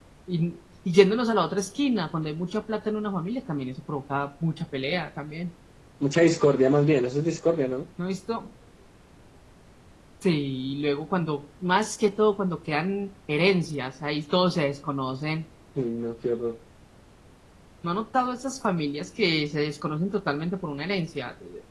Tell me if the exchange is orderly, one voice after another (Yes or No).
Yes